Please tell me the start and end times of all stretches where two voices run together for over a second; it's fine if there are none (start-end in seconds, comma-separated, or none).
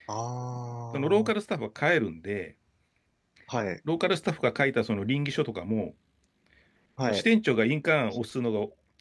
none